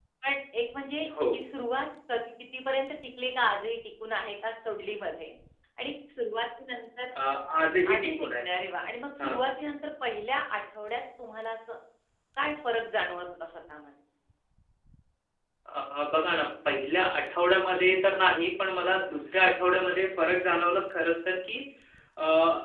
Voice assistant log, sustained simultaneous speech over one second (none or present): none